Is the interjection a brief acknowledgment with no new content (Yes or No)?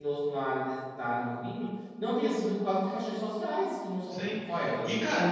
No